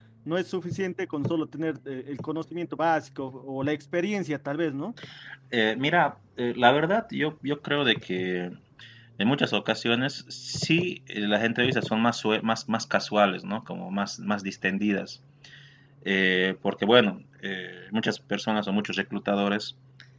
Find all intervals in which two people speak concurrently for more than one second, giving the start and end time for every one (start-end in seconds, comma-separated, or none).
none